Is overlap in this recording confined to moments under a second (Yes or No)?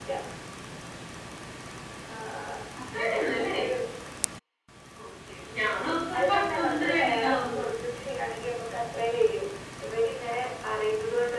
No